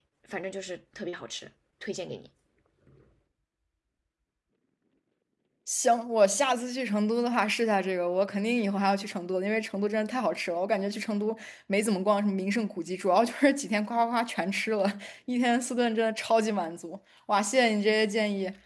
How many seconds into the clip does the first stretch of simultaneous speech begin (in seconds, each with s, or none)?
none